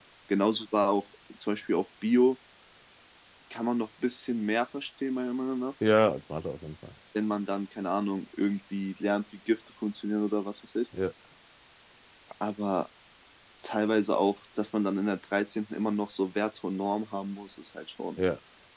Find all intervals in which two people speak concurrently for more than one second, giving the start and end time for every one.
none

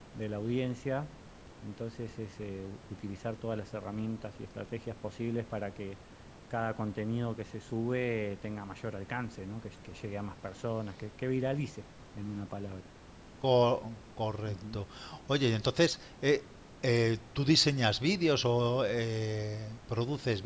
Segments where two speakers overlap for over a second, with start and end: none

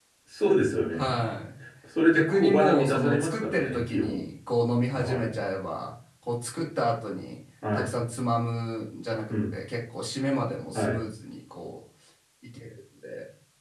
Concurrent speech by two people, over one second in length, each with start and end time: 2.1-4.2

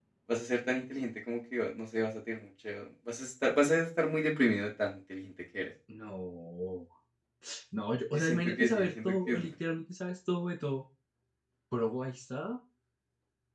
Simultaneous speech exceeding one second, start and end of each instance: 8.1-9.5

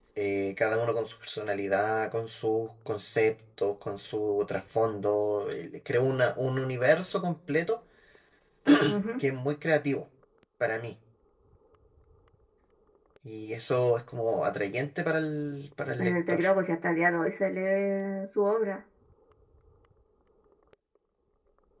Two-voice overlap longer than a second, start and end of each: none

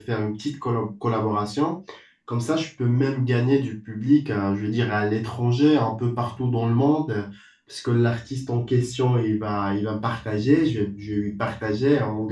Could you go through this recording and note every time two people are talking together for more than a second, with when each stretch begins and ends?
none

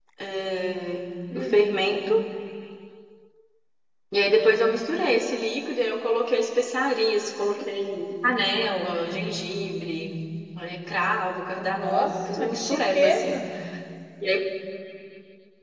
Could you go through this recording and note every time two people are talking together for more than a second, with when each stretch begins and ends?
11.6-13.4

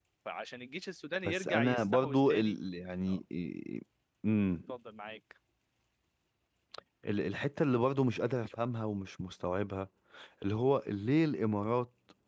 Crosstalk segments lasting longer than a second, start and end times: 1.2-2.6

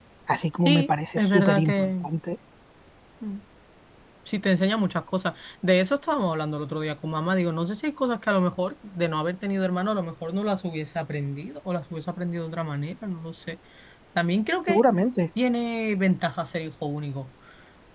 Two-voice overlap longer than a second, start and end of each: 0.6-1.9

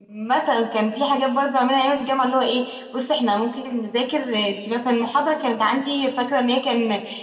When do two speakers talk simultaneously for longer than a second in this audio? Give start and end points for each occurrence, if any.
none

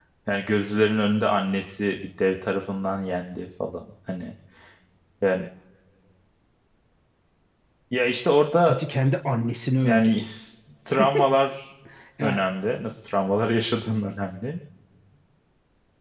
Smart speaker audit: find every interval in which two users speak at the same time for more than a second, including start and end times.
none

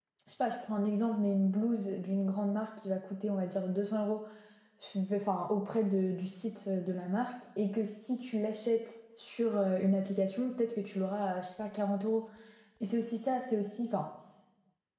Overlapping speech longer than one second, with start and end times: none

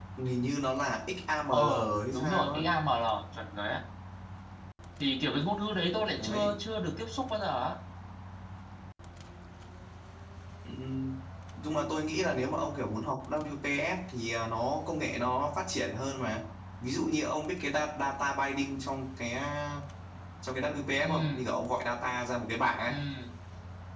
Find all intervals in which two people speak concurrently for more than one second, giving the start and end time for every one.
none

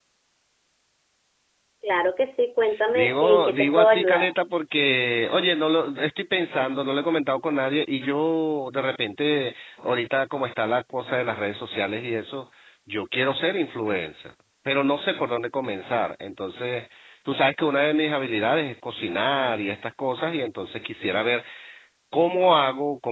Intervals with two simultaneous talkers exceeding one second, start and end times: 3.0-4.3

